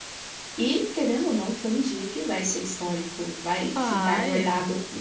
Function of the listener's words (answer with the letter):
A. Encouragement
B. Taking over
A